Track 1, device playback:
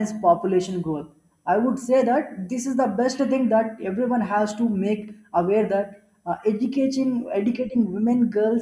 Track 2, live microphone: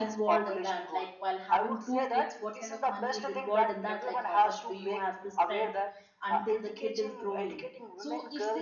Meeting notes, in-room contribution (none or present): present